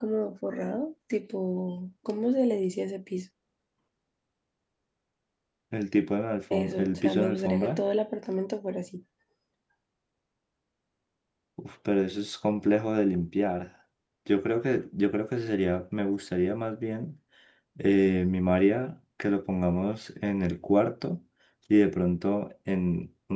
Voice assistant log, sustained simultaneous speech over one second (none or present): present